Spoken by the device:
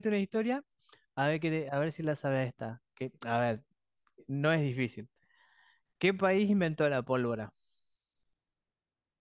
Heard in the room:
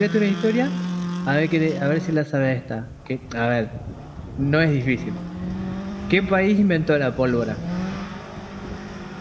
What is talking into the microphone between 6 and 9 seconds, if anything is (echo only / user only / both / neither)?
echo only